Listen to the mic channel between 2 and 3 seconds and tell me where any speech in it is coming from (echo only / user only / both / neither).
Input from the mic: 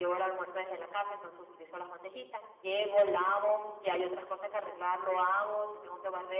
echo only